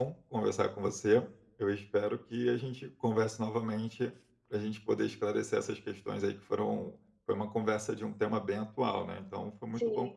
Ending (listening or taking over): taking over